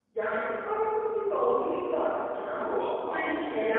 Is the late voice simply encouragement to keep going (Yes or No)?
Yes